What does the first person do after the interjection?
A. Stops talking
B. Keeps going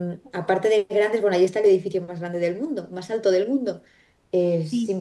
B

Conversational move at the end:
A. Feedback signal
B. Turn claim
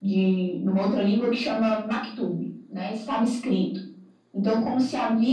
A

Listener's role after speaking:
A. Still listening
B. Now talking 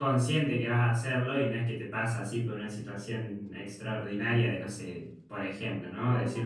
A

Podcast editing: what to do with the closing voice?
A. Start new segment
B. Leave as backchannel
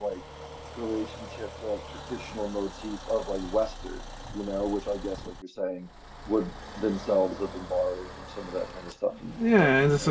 A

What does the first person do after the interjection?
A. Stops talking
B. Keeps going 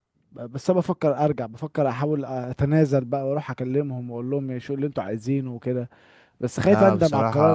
A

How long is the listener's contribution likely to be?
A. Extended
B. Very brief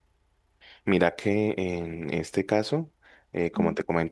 B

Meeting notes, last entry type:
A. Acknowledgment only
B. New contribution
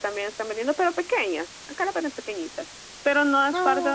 A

